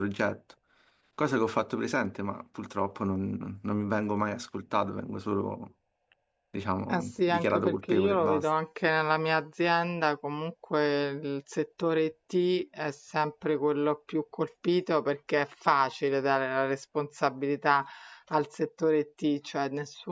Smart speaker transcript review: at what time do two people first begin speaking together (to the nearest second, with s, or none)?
7 s